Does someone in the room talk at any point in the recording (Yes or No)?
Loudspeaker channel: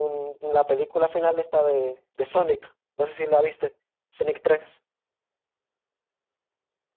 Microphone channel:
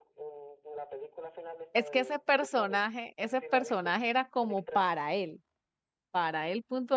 Yes